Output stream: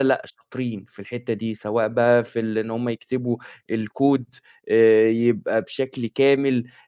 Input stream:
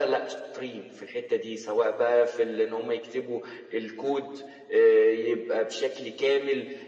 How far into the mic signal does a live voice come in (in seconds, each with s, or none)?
none